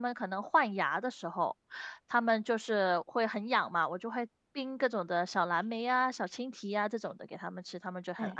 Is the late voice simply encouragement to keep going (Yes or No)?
No